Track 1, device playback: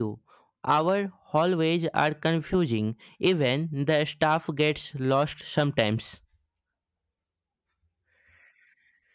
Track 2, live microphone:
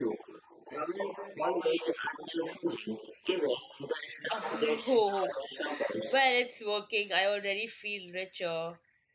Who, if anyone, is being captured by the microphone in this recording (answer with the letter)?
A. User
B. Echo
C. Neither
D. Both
D